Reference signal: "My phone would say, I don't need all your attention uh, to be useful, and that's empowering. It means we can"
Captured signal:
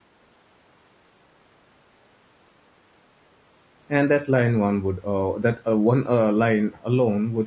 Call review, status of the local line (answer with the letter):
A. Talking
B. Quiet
A